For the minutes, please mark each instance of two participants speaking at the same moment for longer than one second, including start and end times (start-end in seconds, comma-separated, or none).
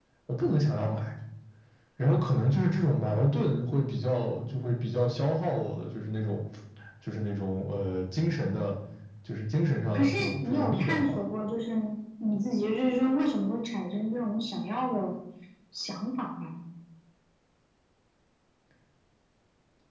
9.9-11.2